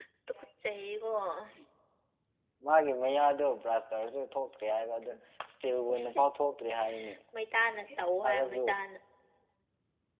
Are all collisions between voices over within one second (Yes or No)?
Yes